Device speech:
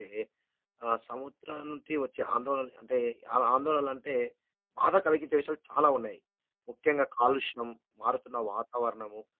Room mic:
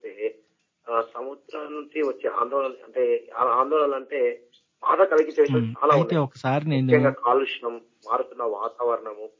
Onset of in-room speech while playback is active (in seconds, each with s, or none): 5.5 s